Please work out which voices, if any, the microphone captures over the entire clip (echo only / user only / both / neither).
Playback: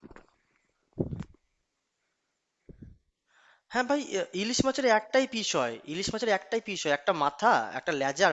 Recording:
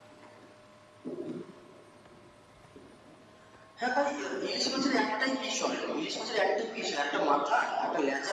echo only